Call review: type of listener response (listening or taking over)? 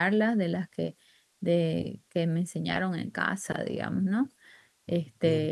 taking over